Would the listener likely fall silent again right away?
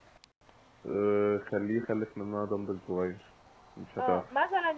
No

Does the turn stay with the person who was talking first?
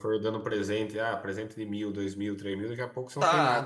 No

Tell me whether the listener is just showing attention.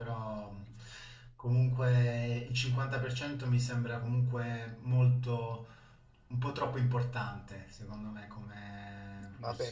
No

